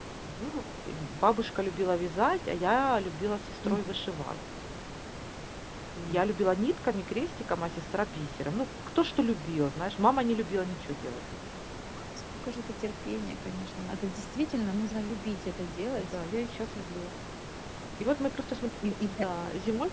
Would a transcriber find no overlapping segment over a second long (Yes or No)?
Yes